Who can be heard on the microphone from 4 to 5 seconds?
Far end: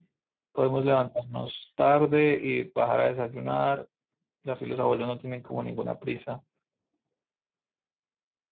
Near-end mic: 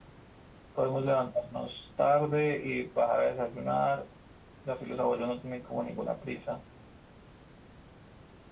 echo only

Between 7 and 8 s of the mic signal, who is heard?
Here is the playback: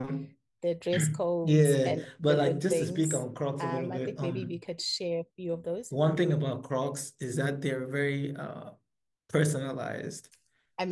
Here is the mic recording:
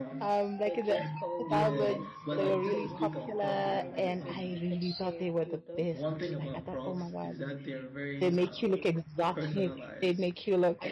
both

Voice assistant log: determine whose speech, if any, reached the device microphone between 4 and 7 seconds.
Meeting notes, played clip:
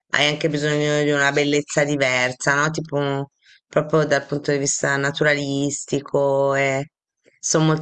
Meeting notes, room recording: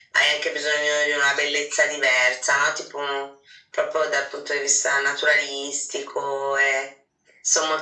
echo only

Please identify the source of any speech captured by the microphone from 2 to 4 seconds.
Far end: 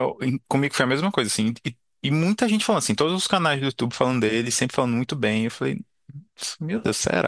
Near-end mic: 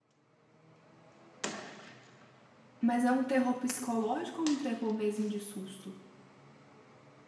user only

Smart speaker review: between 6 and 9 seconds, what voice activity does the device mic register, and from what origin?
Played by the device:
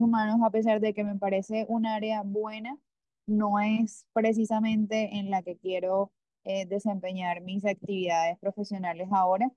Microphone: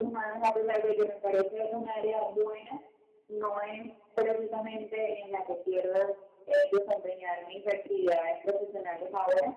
echo only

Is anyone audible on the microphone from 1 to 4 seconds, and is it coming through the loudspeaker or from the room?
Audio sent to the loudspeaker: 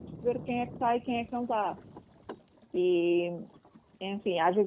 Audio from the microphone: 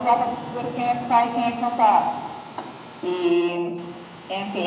echo only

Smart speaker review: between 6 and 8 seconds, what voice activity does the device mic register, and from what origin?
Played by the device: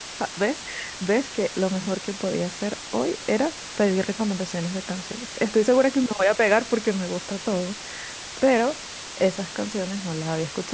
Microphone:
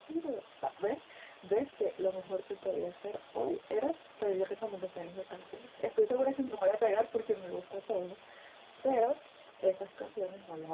echo only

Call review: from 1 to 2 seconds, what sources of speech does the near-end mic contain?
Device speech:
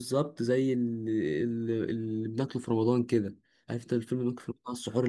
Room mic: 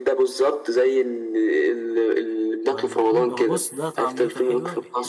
echo only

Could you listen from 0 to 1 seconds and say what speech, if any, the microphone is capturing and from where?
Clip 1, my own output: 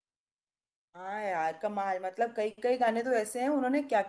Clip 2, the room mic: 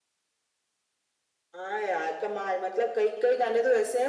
neither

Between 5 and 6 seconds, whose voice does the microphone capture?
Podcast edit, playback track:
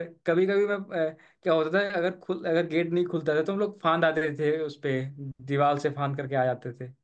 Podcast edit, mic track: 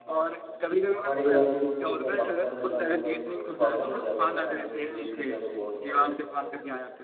both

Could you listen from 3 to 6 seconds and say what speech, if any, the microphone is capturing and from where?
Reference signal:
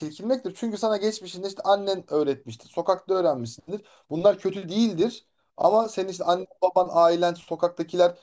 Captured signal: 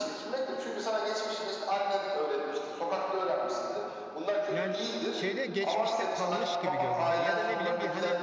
both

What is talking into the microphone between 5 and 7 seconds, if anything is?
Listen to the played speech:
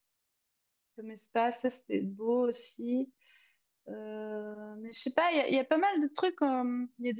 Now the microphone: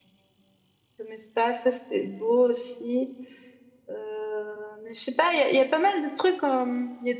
echo only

